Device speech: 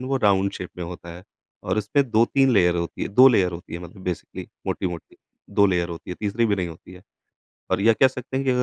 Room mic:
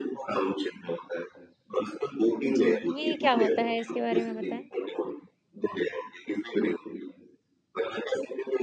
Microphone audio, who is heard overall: both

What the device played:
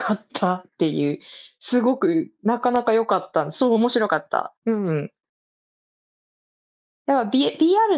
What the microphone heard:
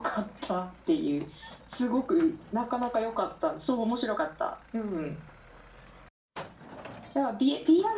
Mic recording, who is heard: echo only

